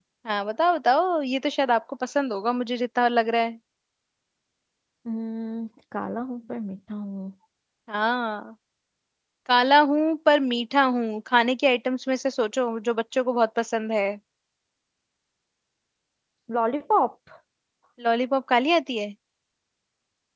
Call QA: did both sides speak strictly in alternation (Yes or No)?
Yes